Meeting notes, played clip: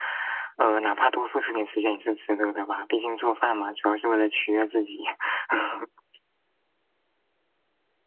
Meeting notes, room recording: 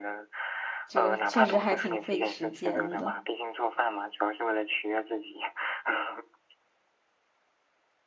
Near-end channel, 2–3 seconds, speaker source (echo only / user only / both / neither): both